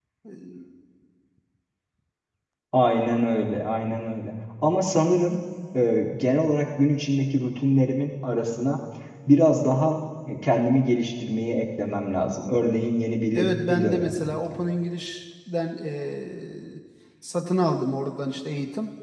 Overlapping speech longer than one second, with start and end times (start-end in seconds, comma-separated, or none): 13.3-14.6